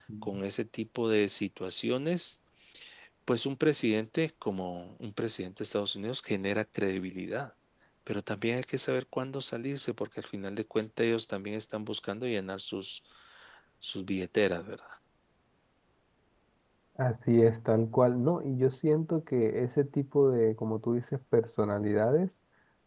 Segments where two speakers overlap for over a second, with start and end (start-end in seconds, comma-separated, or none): none